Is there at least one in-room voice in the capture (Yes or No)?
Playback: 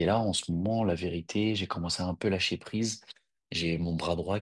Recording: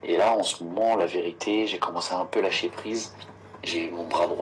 No